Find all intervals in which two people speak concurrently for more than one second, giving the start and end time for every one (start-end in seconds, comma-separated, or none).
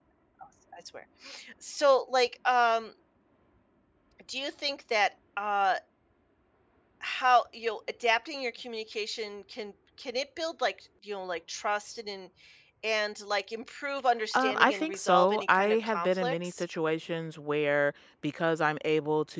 14.4-16.6